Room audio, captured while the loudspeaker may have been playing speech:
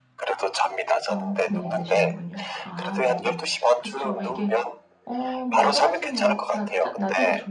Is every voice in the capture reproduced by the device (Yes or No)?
No